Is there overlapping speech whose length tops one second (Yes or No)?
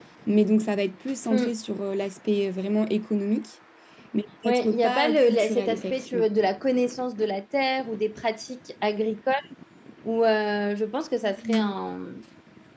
Yes